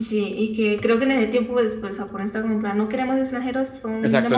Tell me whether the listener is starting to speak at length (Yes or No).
Yes